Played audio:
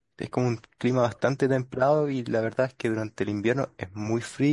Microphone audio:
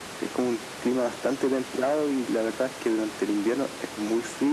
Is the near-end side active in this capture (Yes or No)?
No